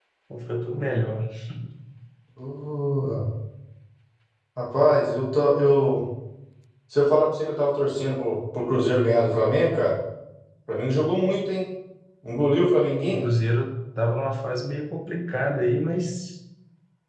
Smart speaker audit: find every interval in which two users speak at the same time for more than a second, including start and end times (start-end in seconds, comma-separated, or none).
none